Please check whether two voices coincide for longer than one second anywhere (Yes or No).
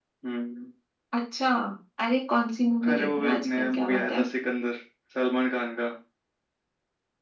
Yes